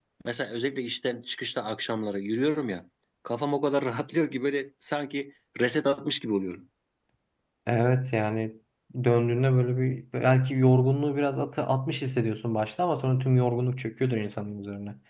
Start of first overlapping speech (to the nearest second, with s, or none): none